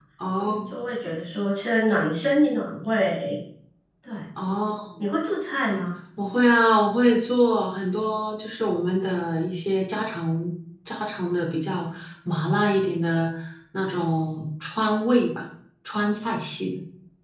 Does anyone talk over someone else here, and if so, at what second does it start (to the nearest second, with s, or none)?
none